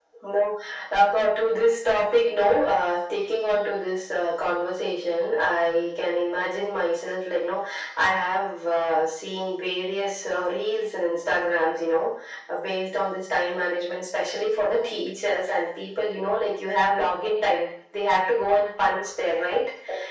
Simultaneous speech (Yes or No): No